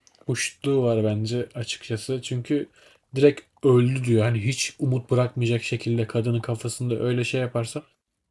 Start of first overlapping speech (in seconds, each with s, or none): none